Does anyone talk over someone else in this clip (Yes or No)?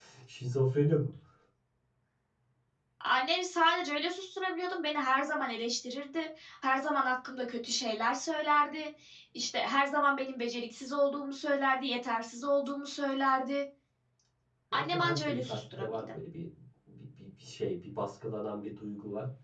Yes